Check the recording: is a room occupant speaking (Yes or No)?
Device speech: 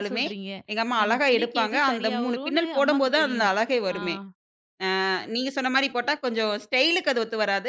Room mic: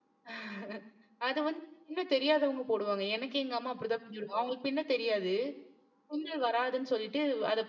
Yes